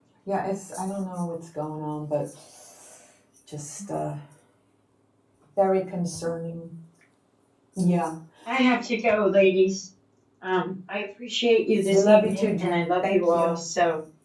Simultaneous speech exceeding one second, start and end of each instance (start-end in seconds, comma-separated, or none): 11.9-13.6